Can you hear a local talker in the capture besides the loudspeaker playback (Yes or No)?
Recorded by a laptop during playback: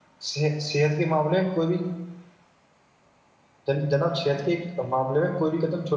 Yes